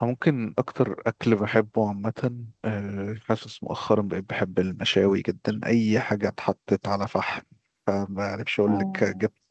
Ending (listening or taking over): listening